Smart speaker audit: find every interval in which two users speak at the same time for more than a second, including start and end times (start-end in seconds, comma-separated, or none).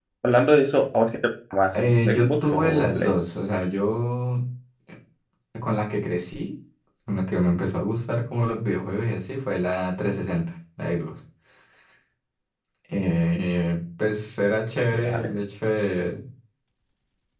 1.7-3.1